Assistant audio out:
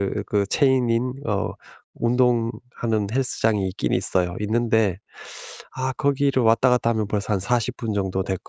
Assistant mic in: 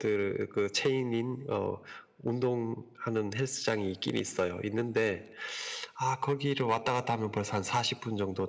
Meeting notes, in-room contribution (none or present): none